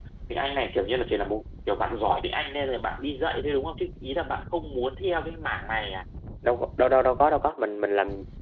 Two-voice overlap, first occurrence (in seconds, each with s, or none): none